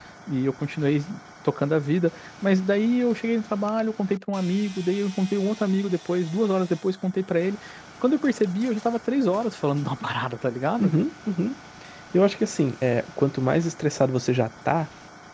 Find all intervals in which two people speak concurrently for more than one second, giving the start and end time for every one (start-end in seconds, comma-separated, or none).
none